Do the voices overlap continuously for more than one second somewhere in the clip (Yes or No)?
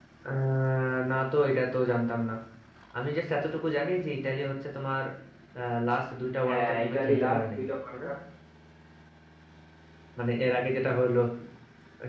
Yes